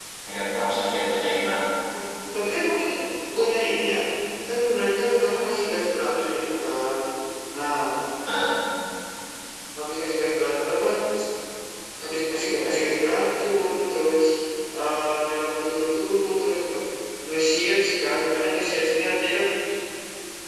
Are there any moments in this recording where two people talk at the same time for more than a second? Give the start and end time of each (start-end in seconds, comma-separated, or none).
none